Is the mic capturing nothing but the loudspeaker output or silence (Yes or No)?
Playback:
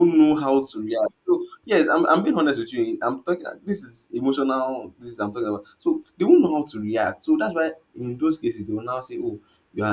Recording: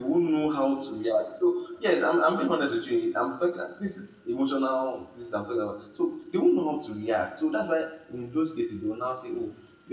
Yes